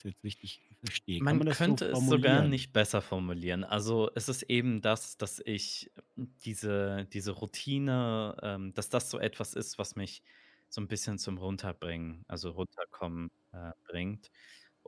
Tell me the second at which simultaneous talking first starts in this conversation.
1 s

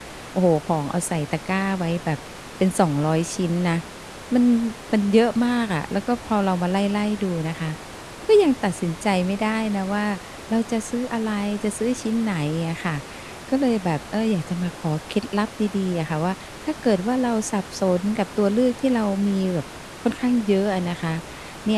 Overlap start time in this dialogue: none

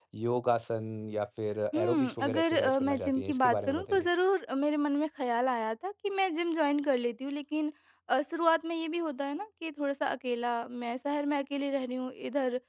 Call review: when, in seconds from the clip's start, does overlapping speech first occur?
2 s

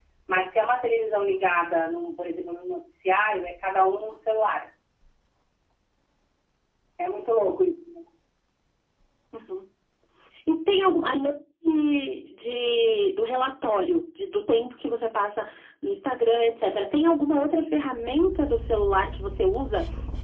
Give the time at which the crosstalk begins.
none

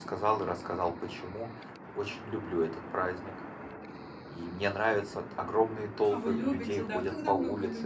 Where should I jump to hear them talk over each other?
6 s

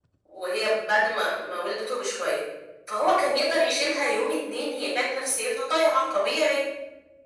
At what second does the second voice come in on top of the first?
none

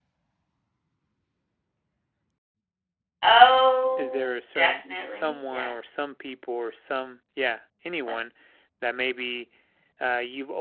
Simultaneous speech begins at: 4 s

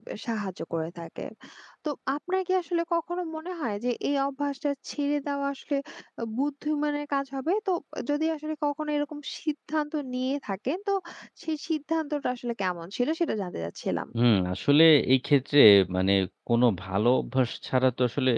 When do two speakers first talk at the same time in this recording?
none

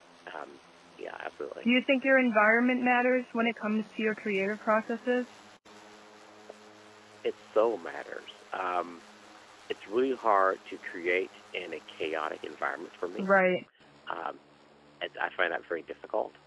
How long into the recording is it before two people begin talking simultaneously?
none

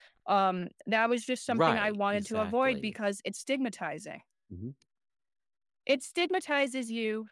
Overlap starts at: 1 s

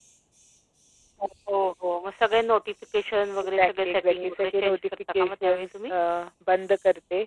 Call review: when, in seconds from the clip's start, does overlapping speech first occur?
4 s

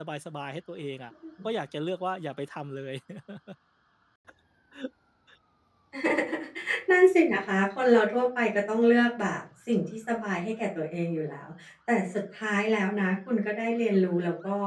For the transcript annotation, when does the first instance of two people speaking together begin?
none

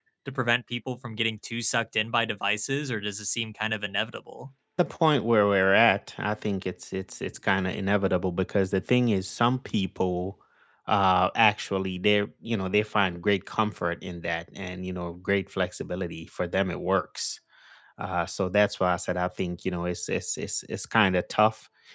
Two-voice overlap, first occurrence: none

